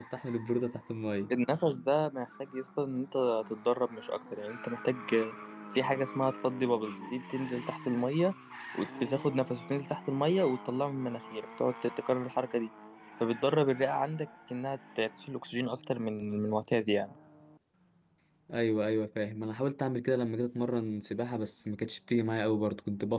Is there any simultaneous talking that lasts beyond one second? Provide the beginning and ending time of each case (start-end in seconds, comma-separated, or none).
none